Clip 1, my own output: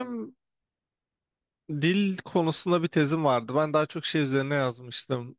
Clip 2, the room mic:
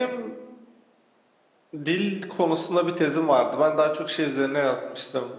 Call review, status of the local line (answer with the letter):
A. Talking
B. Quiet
B